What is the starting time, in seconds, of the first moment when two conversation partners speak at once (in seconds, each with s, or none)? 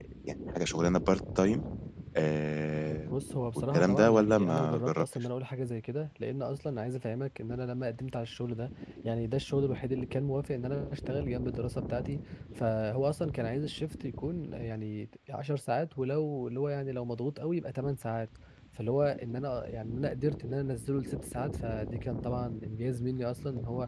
3.7 s